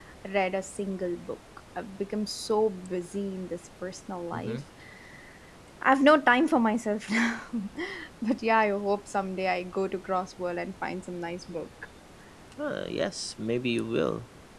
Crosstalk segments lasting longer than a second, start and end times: none

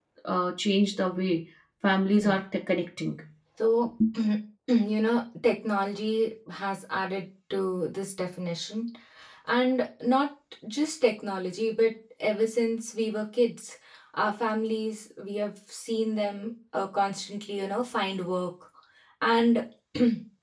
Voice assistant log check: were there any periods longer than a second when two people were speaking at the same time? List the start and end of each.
none

